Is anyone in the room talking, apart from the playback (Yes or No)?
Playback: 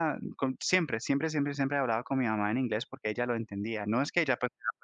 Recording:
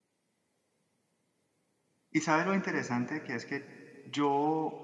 Yes